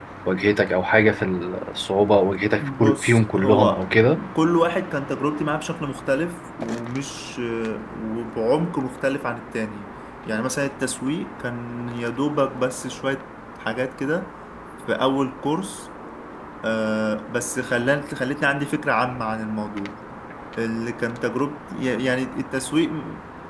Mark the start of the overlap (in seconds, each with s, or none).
2.6 s